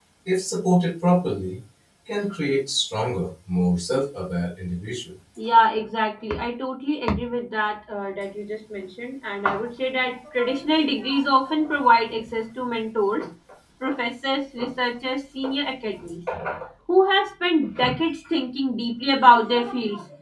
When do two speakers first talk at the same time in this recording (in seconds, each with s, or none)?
none